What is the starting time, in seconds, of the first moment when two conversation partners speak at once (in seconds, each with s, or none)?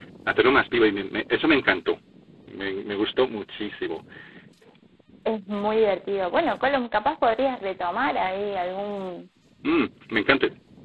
none